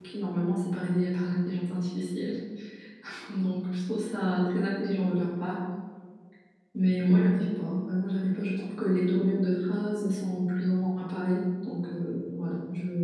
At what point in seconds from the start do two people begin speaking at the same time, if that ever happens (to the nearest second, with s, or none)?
none